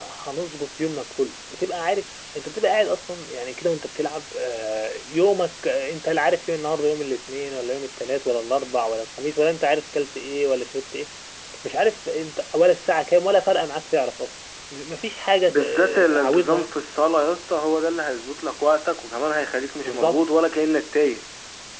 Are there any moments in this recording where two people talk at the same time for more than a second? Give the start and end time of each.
15.5-16.7

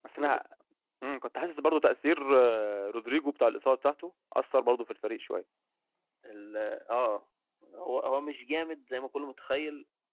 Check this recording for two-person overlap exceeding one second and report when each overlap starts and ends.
none

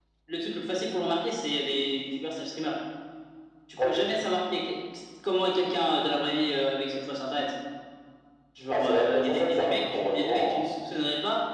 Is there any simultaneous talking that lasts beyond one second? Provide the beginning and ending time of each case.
8.7-10.6

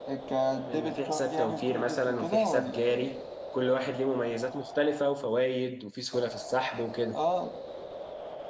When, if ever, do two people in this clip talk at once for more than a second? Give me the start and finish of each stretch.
0.7-3.2

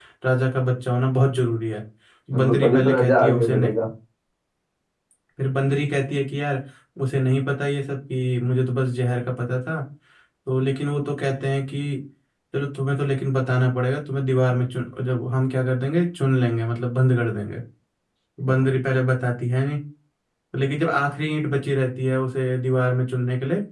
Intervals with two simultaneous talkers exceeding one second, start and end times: 2.3-3.5

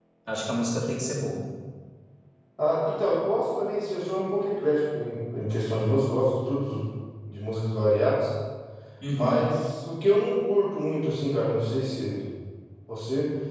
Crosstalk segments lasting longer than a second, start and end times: none

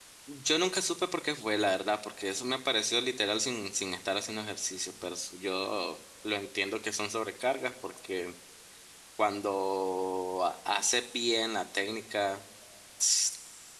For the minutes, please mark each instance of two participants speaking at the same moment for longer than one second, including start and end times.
none

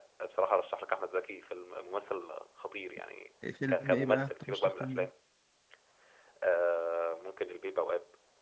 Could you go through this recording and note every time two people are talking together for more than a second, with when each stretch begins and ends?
3.7-5.1

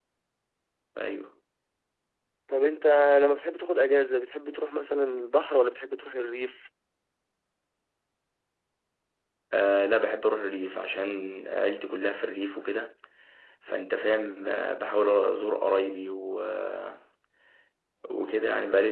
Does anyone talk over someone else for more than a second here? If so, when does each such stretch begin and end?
none

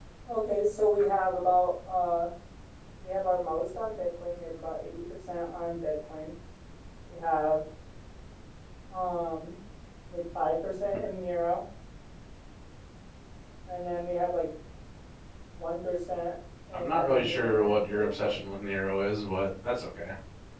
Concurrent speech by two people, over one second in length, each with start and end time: 16.7-18.4

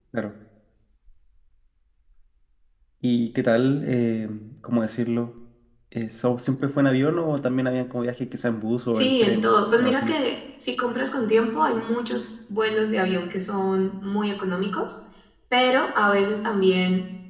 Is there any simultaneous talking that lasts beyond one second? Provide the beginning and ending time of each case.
8.9-10.2

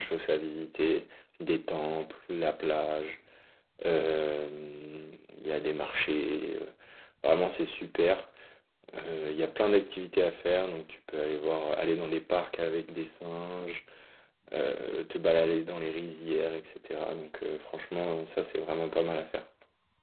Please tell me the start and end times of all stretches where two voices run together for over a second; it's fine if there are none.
none

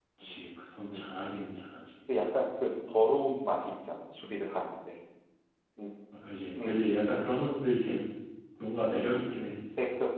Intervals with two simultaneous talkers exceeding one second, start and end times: none

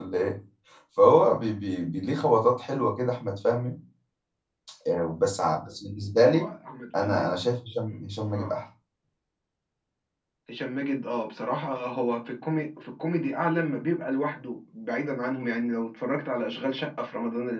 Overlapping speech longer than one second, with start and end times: none

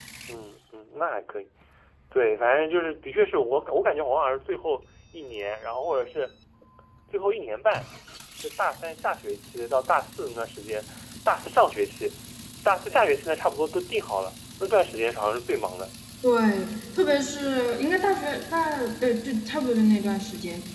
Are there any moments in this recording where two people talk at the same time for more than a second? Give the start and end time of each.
none

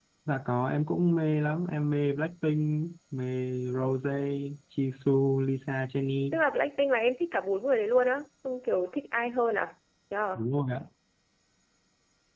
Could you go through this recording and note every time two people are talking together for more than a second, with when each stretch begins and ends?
none

